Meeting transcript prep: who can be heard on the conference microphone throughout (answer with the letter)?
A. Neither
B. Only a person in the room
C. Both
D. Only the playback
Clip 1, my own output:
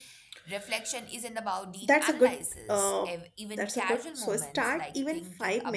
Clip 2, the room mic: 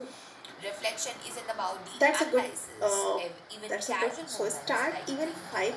D